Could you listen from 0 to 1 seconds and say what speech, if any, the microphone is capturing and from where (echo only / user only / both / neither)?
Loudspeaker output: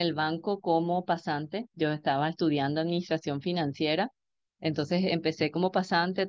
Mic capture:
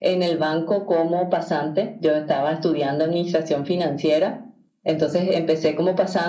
echo only